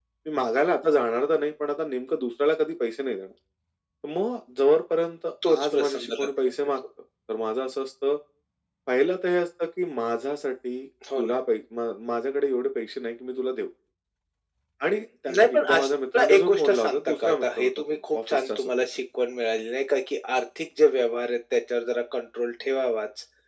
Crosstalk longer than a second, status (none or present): present